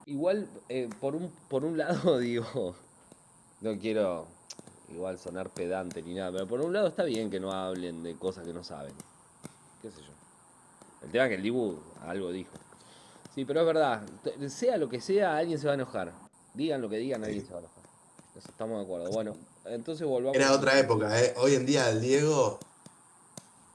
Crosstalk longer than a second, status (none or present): none